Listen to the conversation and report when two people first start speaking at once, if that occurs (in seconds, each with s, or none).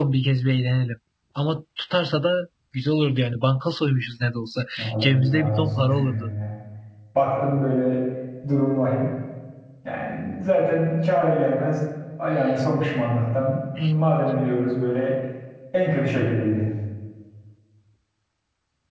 4.8 s